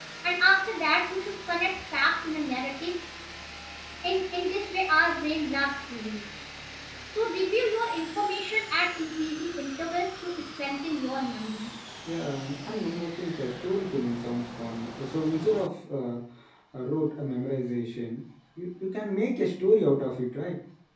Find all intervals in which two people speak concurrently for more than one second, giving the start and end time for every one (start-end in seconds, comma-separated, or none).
none